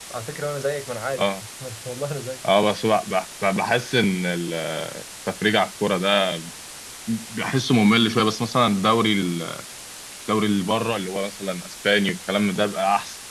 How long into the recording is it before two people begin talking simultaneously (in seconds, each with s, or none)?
none